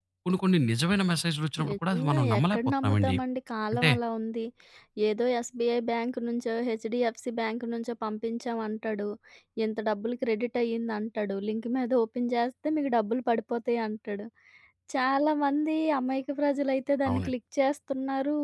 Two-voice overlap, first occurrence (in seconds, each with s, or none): 1.7 s